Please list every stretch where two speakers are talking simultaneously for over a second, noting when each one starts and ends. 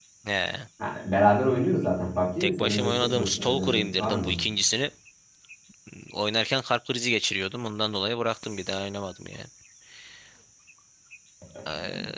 2.4-4.4

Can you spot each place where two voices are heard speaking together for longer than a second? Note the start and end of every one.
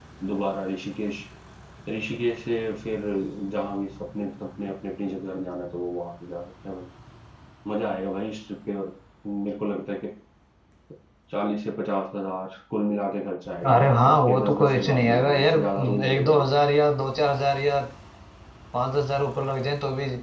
13.7-16.4

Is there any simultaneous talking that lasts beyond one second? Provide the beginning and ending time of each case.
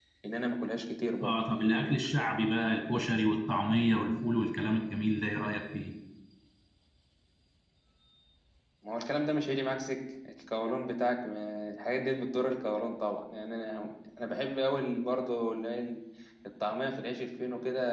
none

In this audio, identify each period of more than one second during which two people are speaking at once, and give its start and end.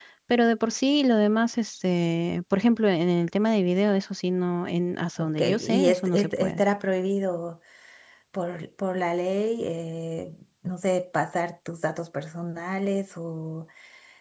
5.2-6.6

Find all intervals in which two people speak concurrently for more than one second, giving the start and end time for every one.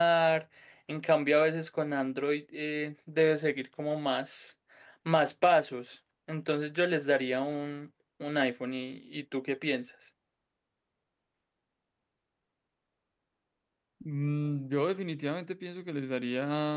none

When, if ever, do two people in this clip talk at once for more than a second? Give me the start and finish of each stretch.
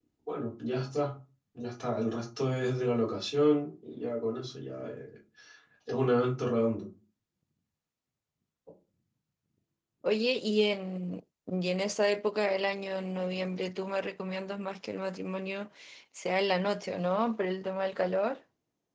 none

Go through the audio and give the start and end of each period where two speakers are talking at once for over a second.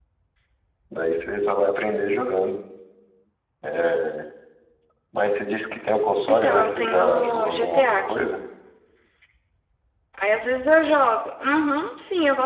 6.3-8.3

